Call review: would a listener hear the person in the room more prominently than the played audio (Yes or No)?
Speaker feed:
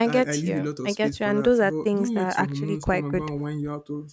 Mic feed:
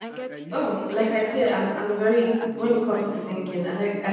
Yes